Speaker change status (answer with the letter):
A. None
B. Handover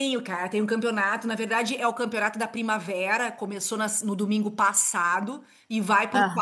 A